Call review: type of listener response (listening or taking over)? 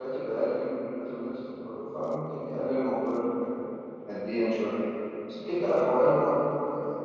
listening